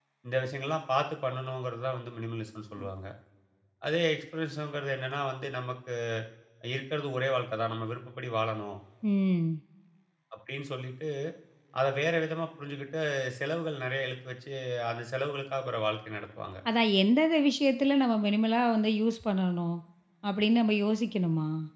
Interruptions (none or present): none